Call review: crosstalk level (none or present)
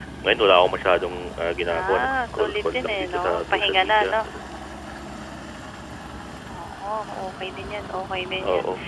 present